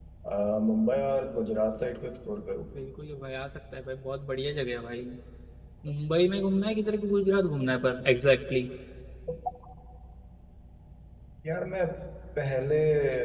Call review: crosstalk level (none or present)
none